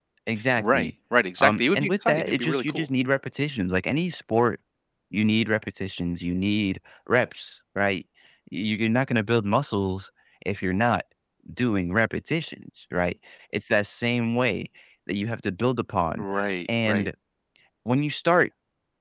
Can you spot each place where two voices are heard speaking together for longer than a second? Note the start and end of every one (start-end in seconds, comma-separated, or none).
1.4-2.9